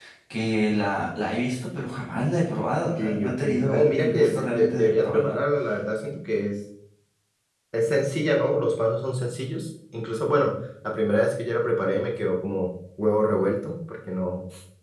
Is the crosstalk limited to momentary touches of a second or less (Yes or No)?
No